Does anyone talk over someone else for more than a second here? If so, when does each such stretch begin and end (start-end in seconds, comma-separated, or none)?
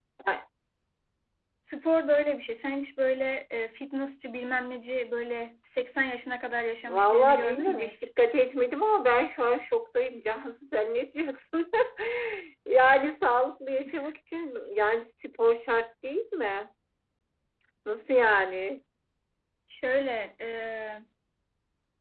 6.9-8.1